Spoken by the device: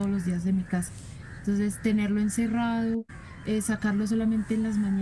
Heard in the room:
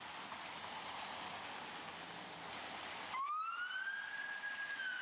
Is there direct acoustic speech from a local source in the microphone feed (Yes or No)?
No